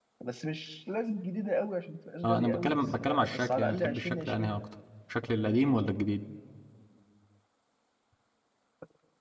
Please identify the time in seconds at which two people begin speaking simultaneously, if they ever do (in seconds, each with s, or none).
2.2 s